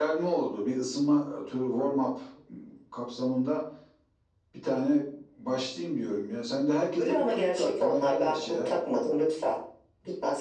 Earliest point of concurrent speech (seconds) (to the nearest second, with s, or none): 7 s